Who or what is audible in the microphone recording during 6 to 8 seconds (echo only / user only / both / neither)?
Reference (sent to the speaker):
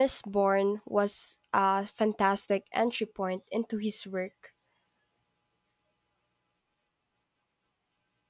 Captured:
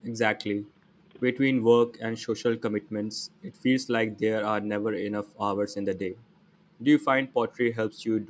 user only